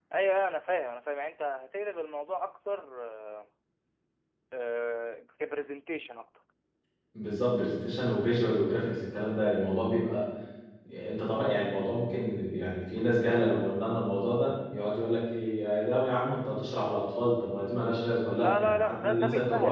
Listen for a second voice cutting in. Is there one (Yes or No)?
Yes